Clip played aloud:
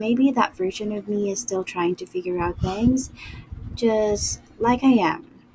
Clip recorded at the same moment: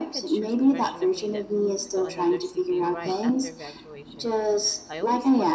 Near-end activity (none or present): present